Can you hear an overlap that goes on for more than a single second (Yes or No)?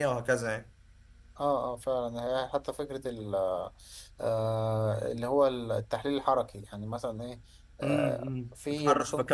Yes